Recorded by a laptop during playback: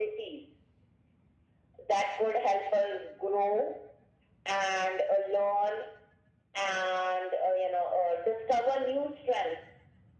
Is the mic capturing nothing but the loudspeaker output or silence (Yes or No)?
Yes